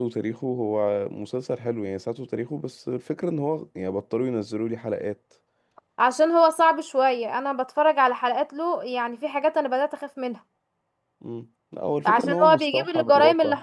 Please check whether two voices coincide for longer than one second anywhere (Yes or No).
Yes